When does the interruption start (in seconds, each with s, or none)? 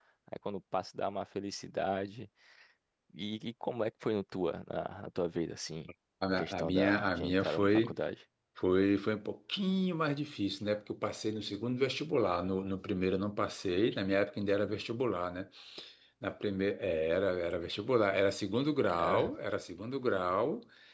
6.4 s